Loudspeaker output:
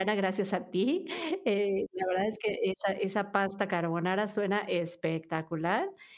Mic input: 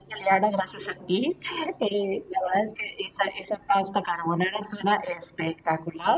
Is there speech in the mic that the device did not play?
No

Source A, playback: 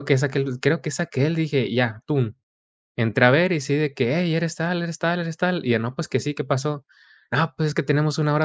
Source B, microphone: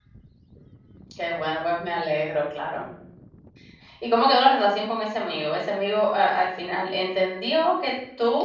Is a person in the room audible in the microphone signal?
Yes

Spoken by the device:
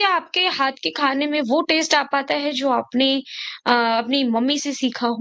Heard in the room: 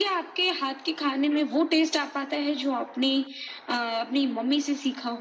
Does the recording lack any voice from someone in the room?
Yes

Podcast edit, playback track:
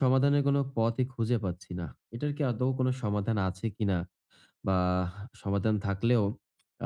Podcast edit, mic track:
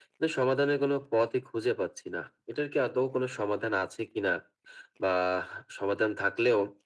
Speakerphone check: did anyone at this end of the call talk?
No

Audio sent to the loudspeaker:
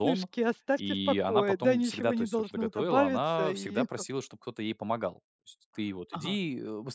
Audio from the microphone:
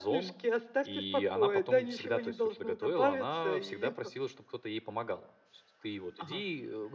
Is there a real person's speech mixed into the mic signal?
No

